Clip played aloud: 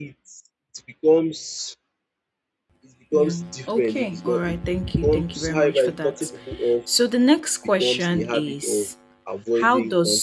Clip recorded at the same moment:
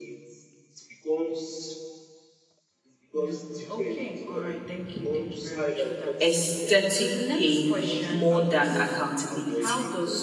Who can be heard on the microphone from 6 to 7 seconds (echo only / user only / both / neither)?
both